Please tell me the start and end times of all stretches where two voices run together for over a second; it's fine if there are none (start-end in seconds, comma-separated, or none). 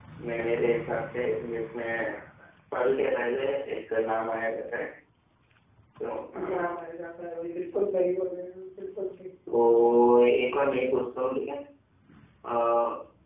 none